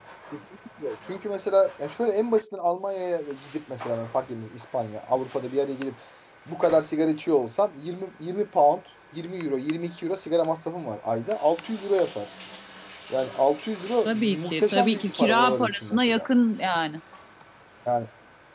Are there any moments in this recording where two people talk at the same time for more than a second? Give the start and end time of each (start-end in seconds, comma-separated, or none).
14.1-16.3